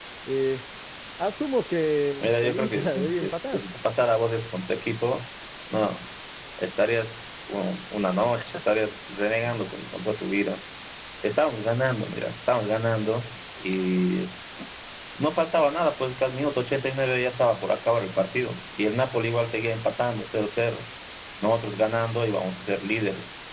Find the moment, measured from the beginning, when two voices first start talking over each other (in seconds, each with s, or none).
2.2 s